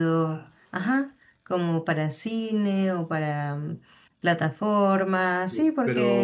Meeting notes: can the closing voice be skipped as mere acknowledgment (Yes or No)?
No